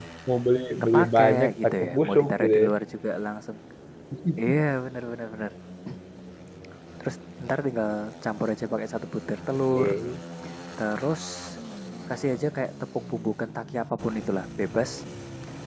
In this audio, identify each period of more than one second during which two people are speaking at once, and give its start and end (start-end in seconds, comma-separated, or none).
0.9-2.7